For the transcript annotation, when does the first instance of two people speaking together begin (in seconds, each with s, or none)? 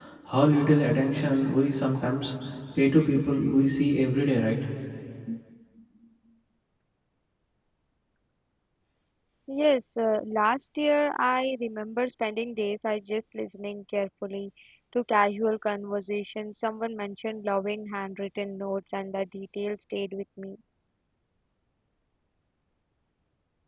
none